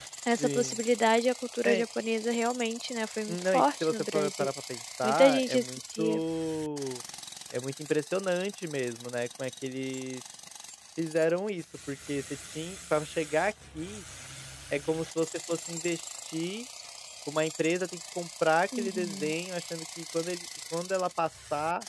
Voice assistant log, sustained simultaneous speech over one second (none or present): present